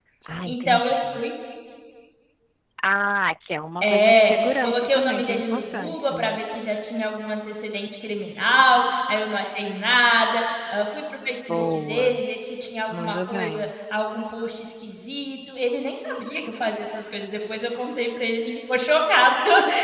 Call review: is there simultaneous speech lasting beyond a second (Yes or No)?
Yes